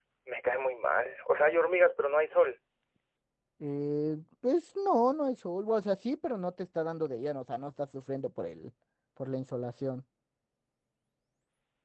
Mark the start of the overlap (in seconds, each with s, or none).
none